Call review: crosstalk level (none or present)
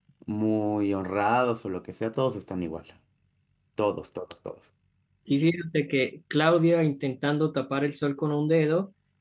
none